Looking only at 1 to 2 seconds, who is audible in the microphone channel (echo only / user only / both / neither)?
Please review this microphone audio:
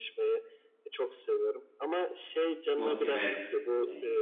echo only